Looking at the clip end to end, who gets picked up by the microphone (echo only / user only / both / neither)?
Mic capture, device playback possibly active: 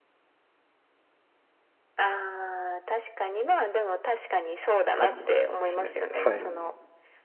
both